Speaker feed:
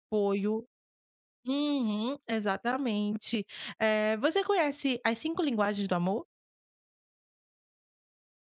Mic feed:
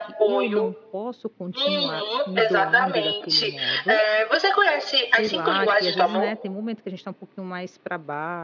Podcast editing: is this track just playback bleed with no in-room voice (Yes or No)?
No